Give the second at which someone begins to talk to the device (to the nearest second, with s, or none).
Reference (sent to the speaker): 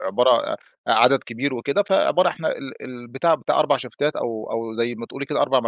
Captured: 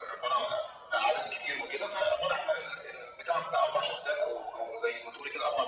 none